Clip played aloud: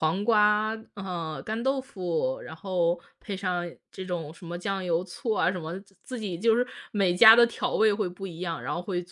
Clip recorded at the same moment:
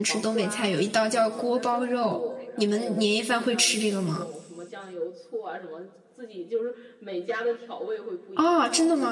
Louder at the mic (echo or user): user